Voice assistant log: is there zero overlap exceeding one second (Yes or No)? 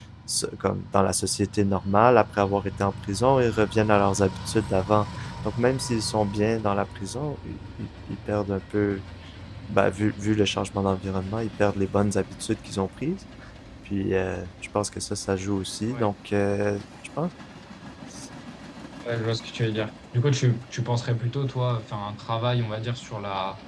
Yes